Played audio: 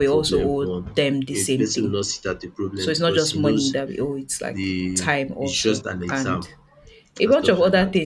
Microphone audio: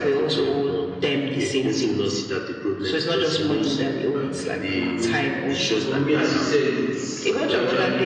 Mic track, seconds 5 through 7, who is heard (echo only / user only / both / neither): both